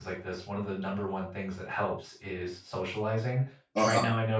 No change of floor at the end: Yes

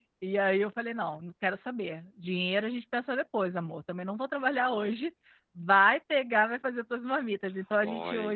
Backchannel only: No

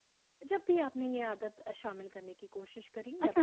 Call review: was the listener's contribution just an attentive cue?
No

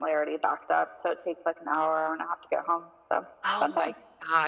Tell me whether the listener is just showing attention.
No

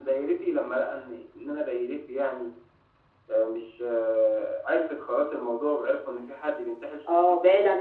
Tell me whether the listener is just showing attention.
No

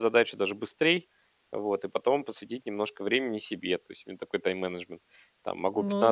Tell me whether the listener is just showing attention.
Yes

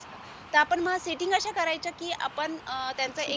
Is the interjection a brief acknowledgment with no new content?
Yes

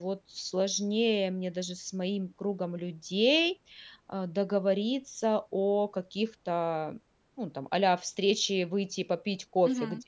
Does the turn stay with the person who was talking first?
No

